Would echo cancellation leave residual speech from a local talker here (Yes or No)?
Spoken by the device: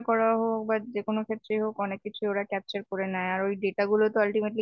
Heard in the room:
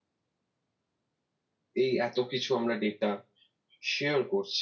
Yes